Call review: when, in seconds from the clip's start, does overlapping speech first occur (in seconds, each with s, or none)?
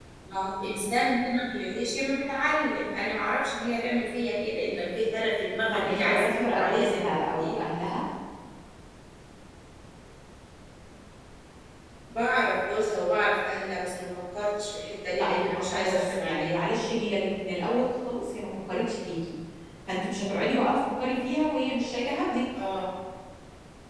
5.7 s